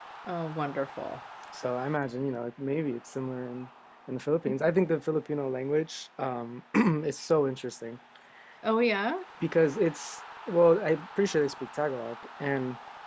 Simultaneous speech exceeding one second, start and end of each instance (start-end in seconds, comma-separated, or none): none